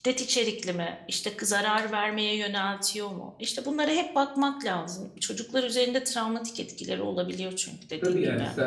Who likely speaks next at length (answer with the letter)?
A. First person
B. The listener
B